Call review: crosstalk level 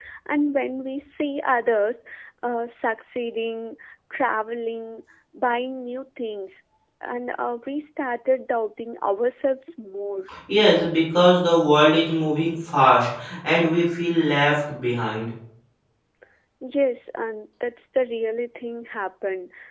none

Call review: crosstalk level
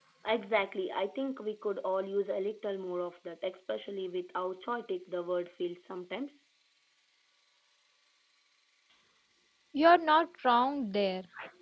none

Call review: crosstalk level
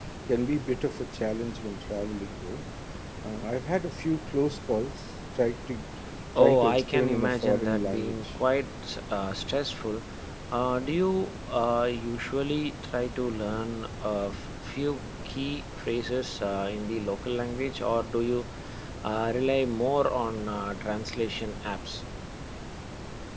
present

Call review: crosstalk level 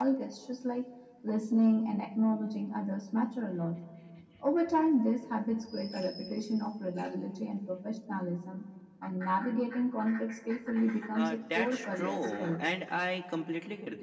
present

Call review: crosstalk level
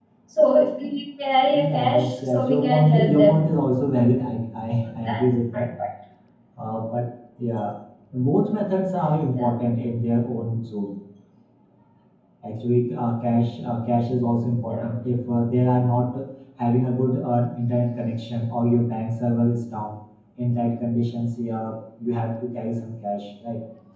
present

